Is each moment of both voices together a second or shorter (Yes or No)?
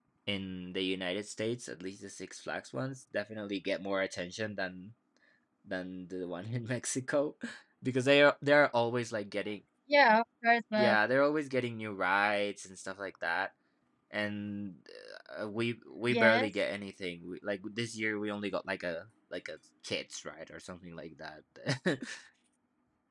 Yes